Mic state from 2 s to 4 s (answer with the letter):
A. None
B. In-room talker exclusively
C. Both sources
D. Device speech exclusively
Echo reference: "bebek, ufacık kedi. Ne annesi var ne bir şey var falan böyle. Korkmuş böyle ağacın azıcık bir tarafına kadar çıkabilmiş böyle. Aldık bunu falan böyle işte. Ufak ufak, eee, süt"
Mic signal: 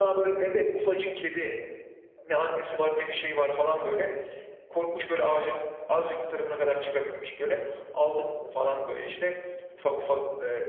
D